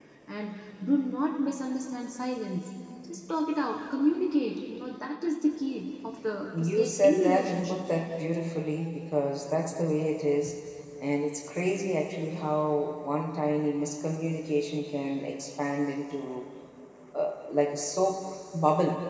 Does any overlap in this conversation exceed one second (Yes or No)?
Yes